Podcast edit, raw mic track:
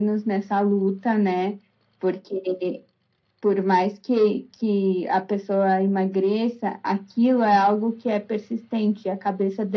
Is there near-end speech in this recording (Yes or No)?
No